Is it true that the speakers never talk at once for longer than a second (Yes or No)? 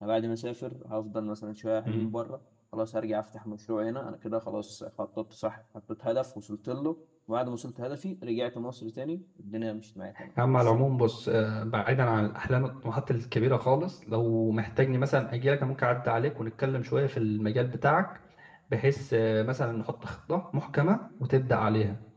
Yes